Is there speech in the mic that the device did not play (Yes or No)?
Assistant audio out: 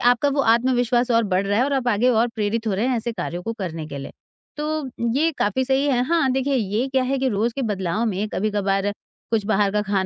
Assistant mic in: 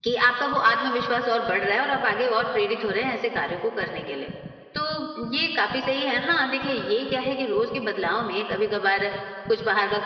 No